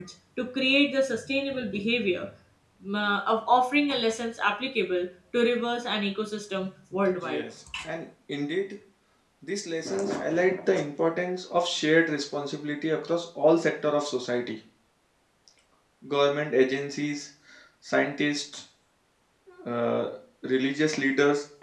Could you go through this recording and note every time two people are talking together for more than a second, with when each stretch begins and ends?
none

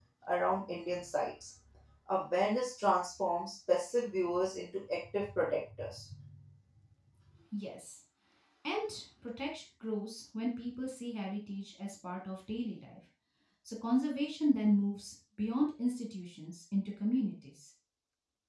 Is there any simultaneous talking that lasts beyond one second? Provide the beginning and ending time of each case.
none

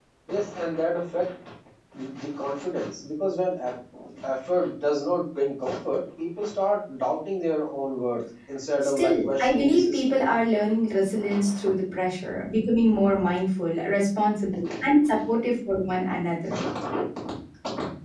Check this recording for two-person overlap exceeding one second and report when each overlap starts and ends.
8.9-10.2

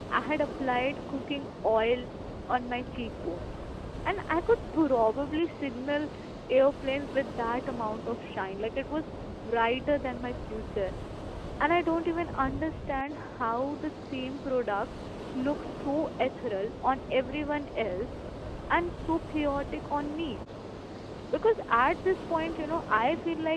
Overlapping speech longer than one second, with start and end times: none

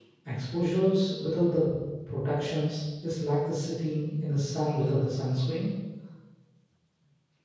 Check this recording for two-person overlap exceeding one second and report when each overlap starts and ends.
none

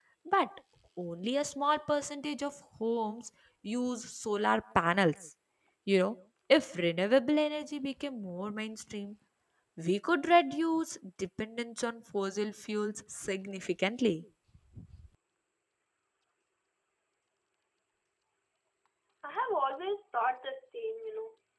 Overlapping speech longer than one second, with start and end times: none

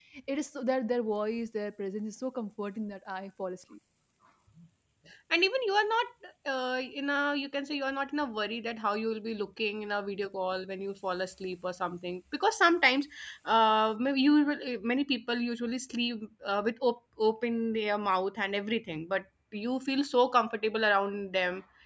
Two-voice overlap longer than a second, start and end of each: none

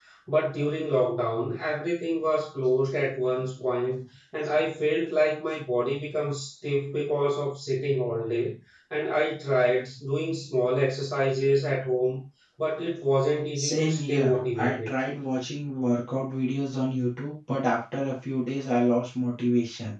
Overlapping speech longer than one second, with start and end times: 13.6-14.9

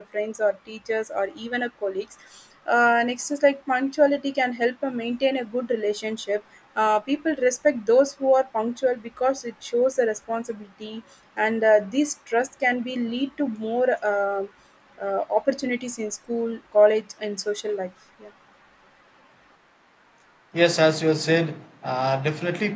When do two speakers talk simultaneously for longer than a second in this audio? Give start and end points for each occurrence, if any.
none

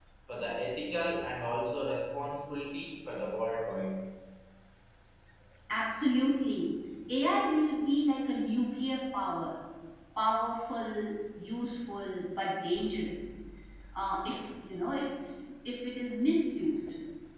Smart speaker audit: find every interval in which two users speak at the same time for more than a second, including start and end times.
none

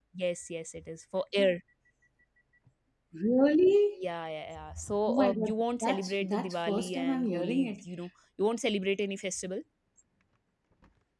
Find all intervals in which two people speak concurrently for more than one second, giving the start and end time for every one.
5.1-7.8

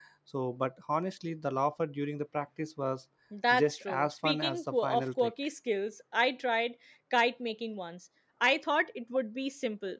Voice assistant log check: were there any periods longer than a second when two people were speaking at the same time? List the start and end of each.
3.6-5.3

